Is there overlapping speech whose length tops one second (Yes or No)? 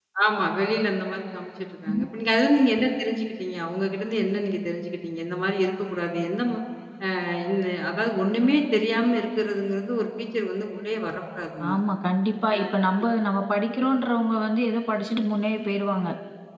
No